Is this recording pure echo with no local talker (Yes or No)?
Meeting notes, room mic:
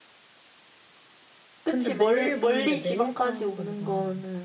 No